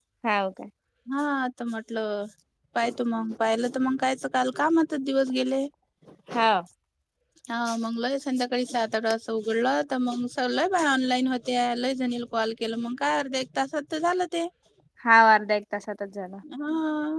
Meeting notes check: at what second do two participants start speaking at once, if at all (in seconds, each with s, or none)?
none